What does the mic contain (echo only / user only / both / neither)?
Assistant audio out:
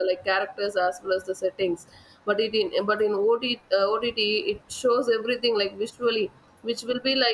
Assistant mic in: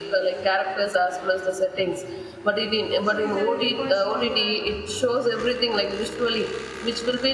both